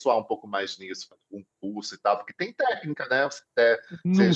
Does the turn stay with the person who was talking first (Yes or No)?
Yes